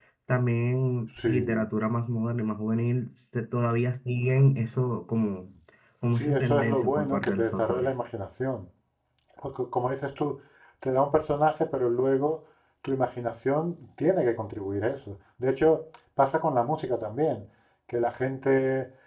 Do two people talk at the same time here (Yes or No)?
Yes